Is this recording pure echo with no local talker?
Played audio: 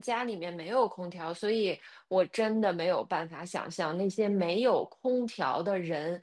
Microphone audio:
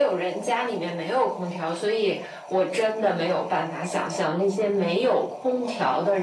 Yes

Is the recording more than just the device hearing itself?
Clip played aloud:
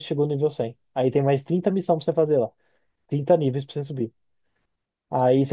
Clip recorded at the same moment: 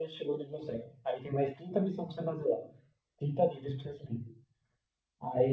No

